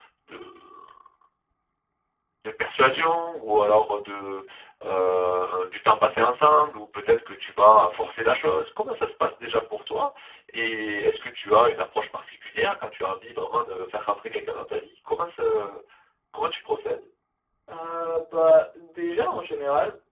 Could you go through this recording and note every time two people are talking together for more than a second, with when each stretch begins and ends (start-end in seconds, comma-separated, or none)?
none